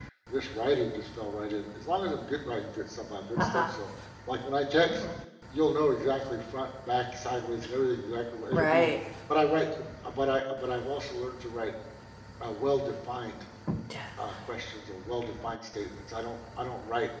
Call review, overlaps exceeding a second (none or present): none